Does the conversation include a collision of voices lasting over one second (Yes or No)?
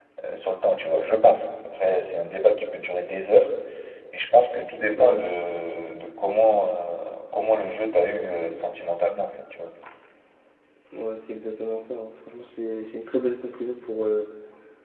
No